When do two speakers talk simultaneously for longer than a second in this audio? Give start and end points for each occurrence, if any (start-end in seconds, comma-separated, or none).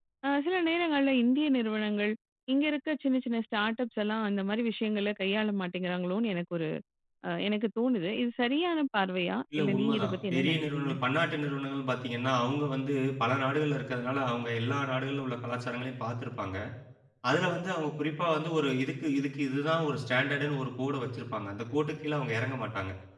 9.6-10.9